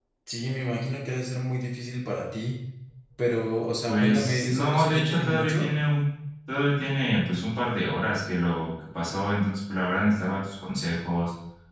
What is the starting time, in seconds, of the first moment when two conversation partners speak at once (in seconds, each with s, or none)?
3.9 s